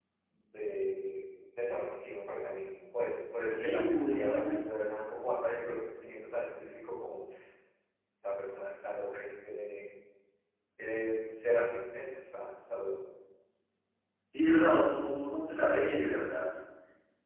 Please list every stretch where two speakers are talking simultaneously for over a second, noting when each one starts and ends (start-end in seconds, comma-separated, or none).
3.5-4.8